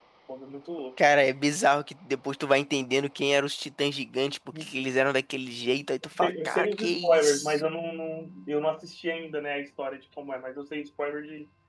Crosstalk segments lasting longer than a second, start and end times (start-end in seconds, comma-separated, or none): 6.2-7.7